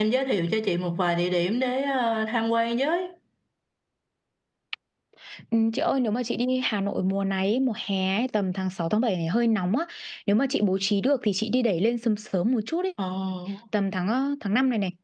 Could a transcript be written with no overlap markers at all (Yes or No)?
Yes